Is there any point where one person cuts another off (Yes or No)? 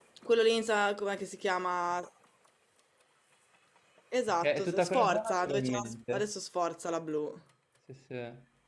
Yes